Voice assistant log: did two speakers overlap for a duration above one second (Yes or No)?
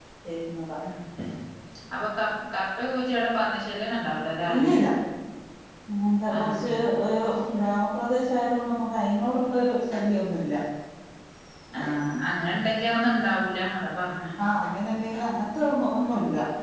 No